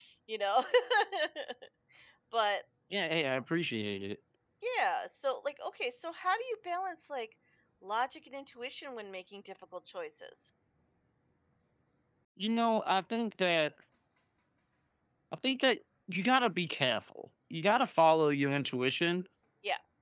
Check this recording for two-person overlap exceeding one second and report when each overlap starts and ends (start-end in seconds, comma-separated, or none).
none